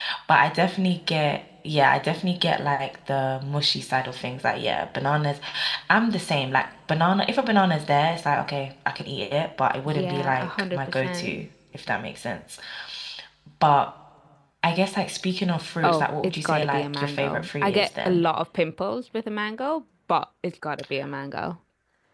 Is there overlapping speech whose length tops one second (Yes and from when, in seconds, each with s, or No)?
Yes, from 9.9 s